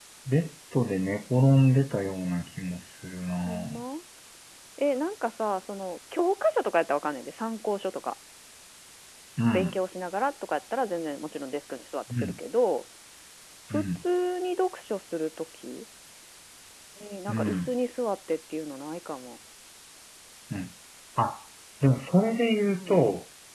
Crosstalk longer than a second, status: none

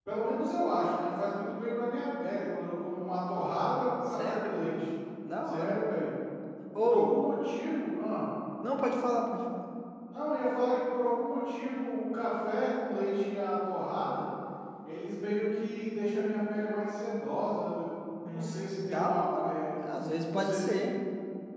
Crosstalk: present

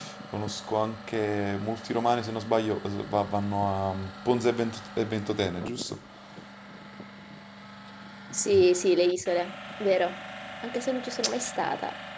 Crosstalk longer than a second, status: none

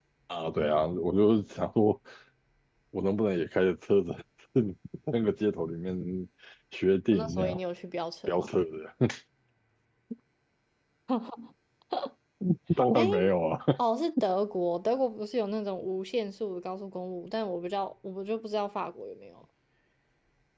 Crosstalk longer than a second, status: none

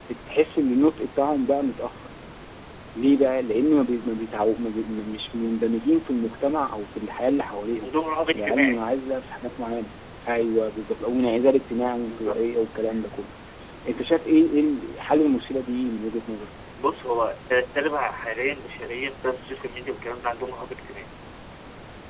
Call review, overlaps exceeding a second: none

